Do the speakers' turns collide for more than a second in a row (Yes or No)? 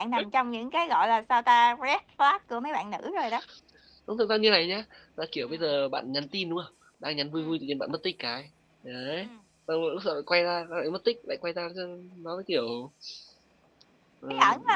No